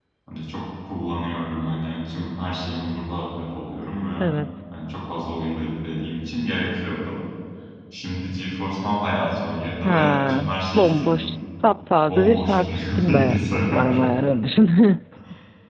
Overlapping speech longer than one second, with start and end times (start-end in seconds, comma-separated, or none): 9.8-11.3, 12.1-14.0